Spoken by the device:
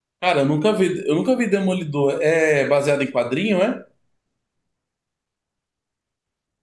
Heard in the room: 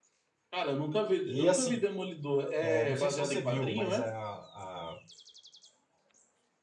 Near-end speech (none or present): present